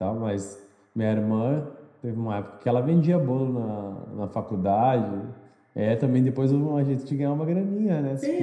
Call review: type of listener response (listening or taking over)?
taking over